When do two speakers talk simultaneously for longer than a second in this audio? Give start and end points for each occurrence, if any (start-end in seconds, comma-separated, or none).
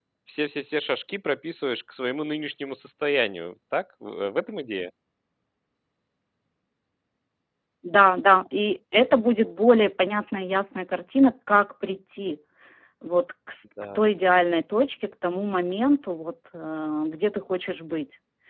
none